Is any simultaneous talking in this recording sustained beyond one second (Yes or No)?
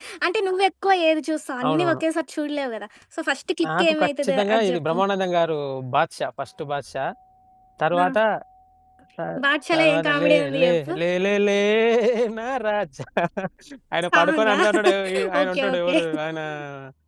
Yes